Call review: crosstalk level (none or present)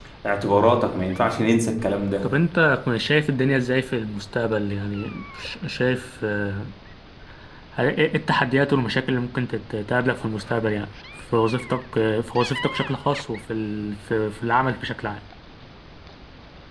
none